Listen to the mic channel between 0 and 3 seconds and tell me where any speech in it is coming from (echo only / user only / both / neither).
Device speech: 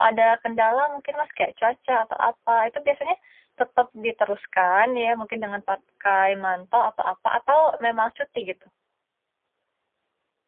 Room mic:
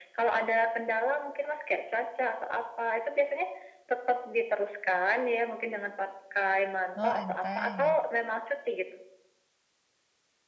echo only